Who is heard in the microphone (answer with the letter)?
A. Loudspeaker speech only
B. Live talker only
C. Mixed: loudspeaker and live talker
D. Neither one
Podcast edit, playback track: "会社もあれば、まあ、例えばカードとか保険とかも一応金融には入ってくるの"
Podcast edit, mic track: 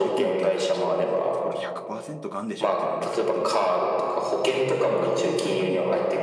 C